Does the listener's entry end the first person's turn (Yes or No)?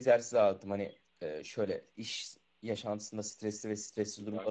No